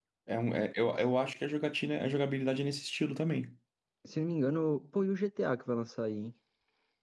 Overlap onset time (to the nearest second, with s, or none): none